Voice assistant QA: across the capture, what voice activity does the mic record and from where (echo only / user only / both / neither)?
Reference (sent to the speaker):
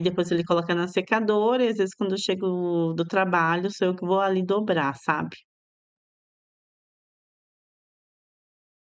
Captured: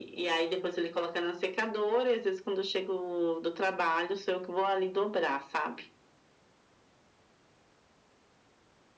echo only